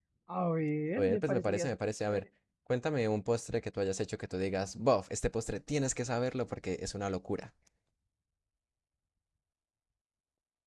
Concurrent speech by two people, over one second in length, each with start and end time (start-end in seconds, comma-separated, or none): 1.0-2.2